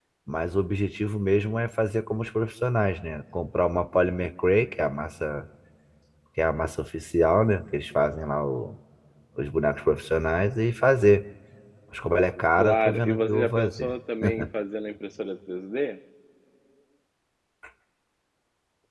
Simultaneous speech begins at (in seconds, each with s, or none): 12.6 s